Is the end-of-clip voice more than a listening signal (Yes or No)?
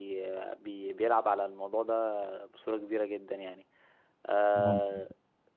No